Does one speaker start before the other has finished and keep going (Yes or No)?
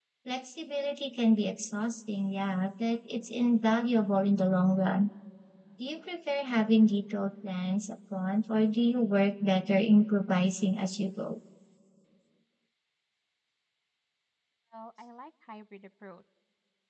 No